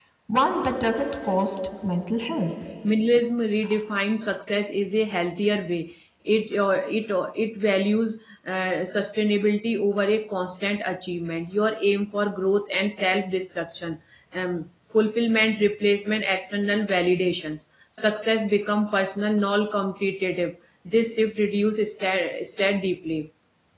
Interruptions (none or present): none